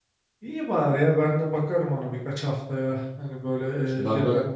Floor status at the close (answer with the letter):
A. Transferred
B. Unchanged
B